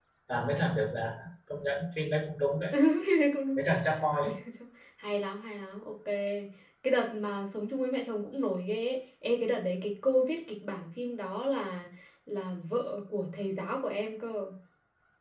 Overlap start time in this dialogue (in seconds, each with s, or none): none